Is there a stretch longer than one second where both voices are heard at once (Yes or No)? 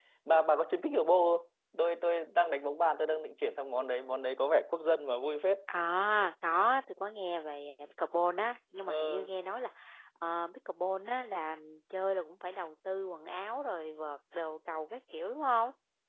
No